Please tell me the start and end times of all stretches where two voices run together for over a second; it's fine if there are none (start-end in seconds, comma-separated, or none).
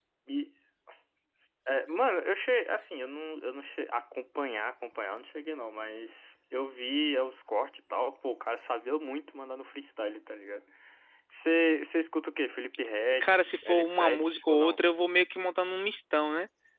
13.2-14.8